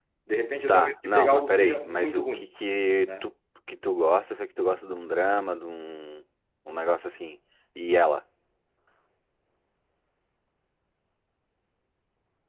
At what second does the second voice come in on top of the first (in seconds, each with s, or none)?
0.7 s